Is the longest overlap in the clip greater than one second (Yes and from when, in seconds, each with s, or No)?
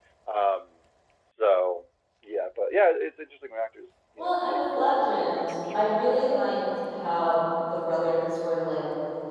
Yes, from 4.2 s